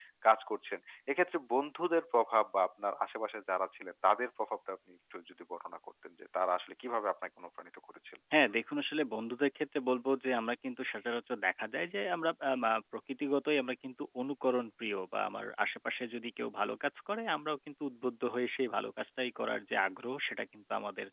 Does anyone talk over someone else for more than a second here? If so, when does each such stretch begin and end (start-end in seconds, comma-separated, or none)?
none